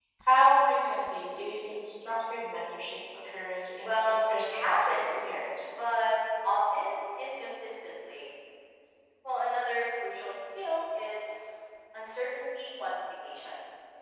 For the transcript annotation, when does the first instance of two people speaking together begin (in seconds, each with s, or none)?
3.8 s